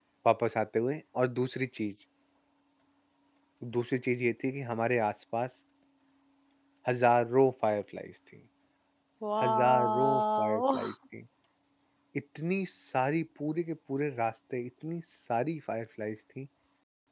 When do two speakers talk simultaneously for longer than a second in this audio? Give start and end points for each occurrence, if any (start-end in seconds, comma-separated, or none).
9.4-10.9